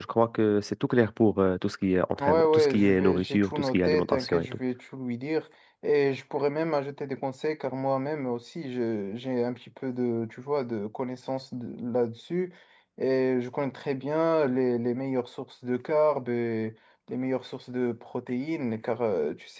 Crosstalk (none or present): present